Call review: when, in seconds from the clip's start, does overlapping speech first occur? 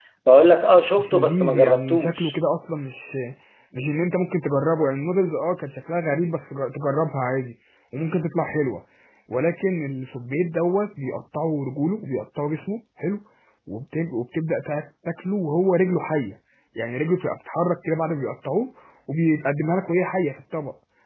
1 s

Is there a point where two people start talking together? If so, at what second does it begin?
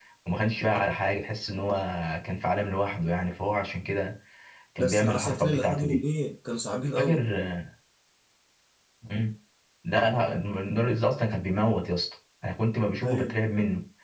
5 s

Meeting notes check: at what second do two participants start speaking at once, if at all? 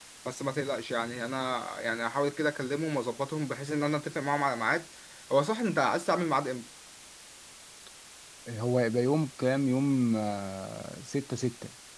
none

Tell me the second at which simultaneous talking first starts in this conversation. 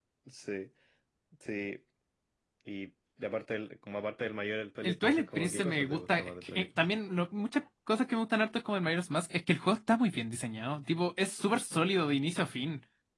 5 s

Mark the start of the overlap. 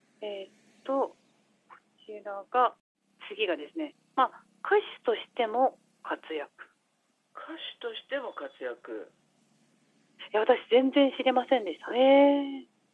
none

